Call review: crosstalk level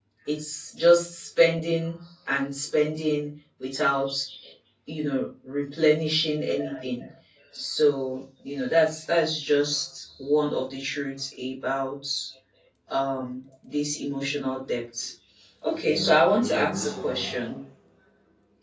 present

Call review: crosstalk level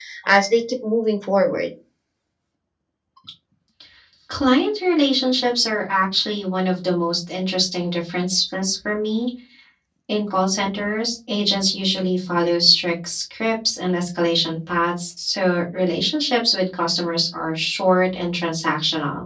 none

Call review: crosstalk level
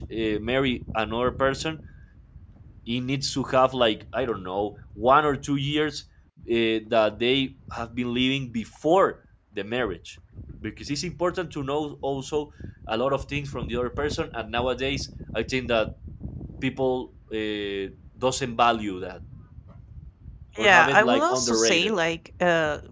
present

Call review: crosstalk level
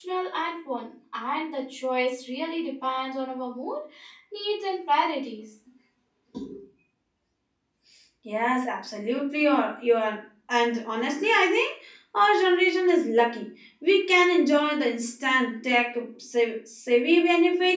none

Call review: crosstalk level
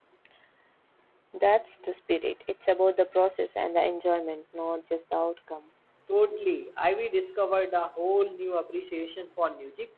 none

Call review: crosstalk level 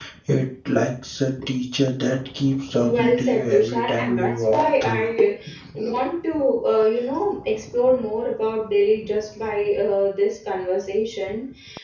present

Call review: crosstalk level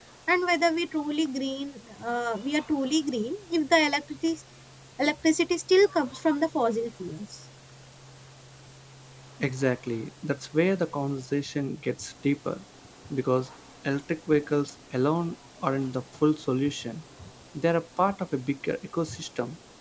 none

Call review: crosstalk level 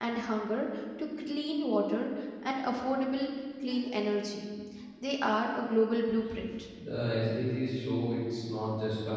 none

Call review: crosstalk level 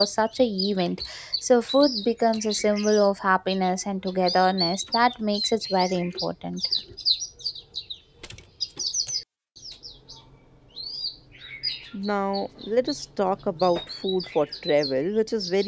none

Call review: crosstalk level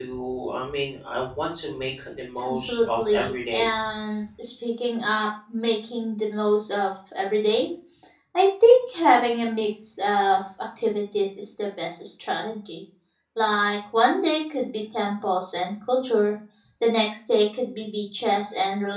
present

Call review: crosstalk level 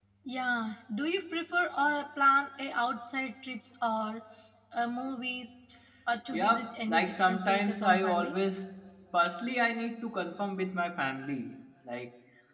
present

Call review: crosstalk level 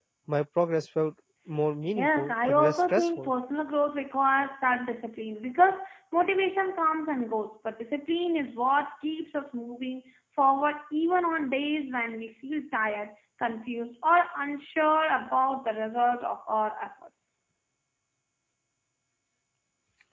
present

